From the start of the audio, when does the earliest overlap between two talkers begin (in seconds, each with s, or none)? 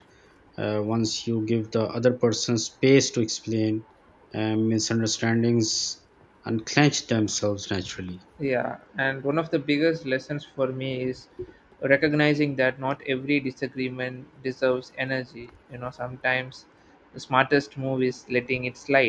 none